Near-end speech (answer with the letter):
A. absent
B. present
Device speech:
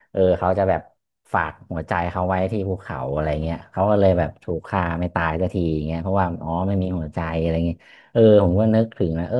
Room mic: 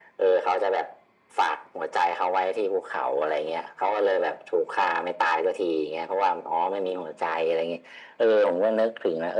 A